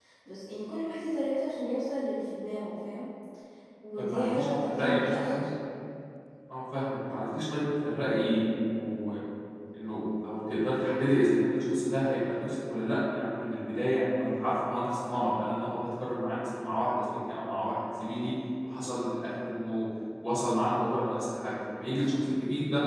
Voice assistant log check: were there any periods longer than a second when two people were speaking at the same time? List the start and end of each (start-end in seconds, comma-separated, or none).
4.0-5.4